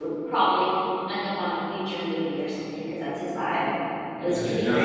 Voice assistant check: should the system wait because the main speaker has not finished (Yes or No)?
No